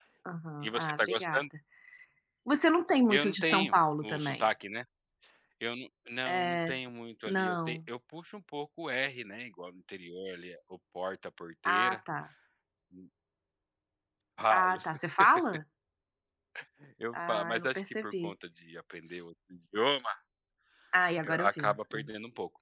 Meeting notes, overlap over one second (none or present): present